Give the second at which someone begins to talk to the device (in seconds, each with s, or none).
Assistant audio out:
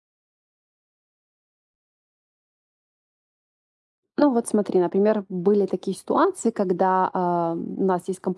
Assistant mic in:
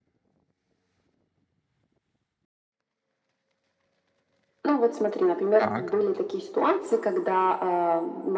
5.6 s